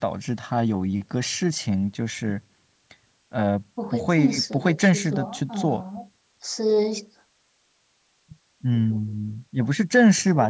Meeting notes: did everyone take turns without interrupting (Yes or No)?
No